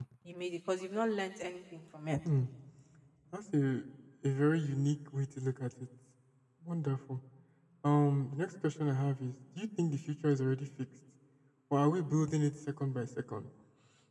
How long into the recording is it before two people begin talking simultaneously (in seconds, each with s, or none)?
none